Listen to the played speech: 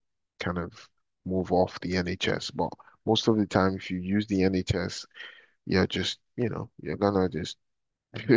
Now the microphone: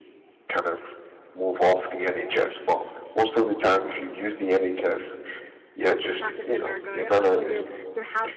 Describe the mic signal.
both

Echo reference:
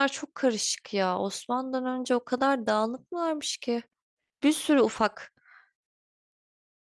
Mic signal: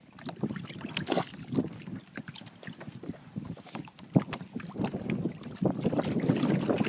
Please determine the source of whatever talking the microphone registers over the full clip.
neither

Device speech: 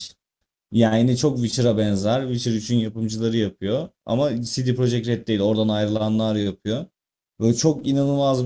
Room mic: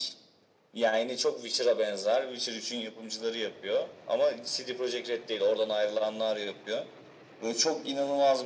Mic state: echo only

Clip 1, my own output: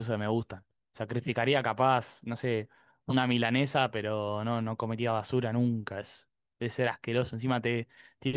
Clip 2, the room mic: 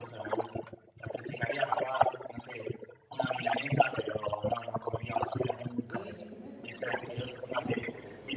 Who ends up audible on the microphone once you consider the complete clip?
both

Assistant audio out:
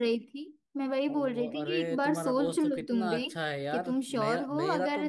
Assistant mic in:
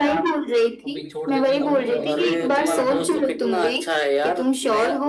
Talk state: both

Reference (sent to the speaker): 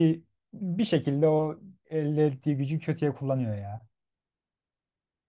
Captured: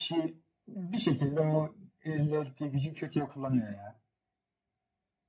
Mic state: echo only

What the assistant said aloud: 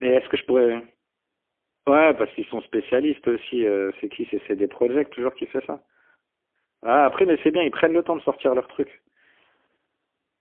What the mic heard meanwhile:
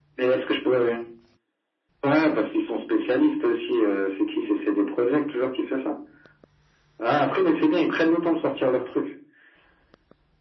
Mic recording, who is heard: echo only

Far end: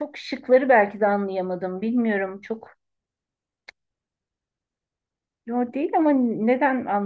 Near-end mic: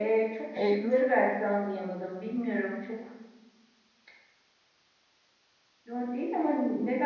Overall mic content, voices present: both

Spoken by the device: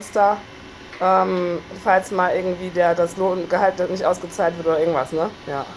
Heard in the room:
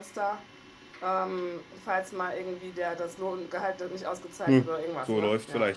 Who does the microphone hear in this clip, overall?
both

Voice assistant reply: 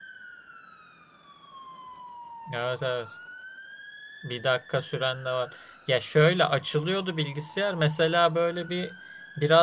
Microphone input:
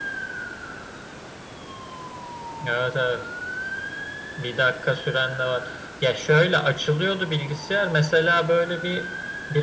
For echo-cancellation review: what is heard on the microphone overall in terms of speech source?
echo only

